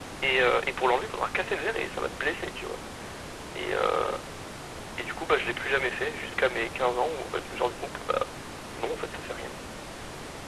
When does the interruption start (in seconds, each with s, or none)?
none